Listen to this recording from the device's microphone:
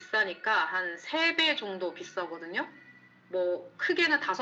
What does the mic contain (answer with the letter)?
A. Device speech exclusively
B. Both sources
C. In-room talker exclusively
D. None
A